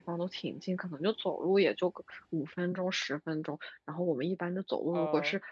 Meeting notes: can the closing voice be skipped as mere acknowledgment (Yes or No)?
Yes